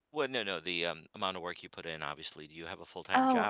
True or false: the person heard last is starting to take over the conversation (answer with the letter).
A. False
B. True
B